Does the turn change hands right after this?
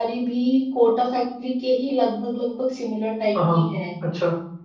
Yes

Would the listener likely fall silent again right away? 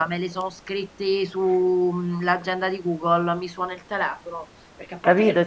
No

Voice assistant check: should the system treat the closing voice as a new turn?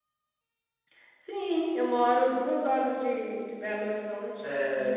Yes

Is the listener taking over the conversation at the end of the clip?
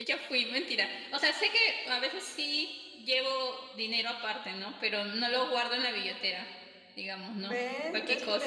Yes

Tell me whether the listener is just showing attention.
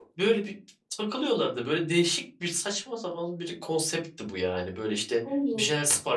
Yes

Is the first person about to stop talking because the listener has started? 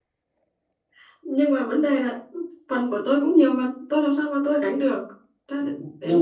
Yes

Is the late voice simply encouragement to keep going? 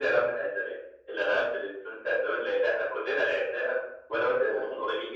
Yes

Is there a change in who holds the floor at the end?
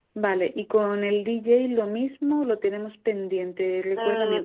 Yes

